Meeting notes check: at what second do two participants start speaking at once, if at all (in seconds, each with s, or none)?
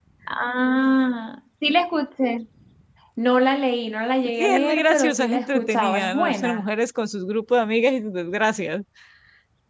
4.4 s